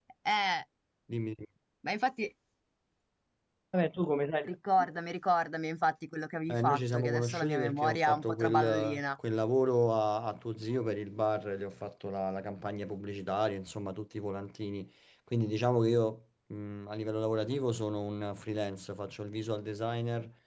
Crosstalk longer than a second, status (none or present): present